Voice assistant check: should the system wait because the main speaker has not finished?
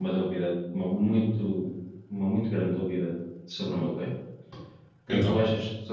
Yes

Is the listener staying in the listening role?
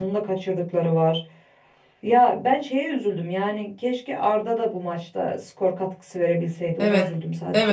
No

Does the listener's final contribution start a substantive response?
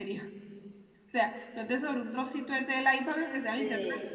No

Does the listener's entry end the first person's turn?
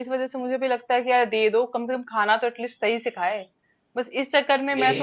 No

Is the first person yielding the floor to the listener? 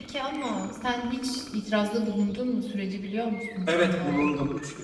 Yes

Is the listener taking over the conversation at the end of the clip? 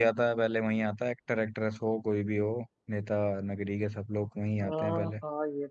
Yes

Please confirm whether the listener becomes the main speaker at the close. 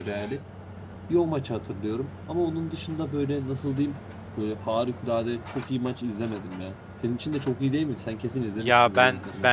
Yes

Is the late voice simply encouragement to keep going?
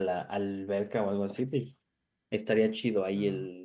Yes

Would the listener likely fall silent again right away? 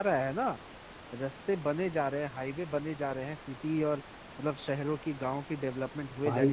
No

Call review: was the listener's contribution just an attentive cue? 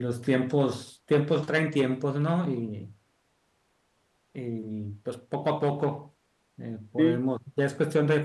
Yes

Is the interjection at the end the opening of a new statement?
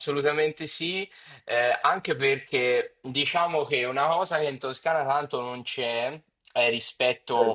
No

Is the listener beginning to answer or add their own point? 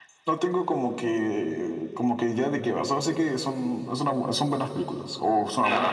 Yes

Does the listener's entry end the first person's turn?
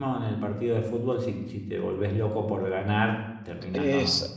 Yes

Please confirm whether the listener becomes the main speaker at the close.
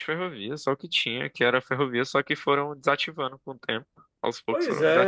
Yes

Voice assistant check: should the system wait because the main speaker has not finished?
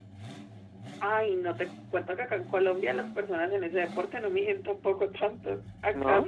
Yes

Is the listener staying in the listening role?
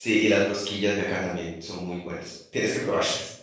No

